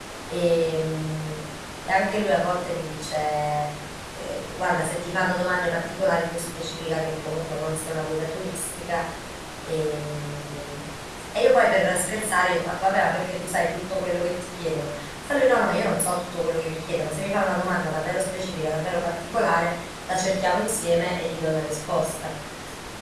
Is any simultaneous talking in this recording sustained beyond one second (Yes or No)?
No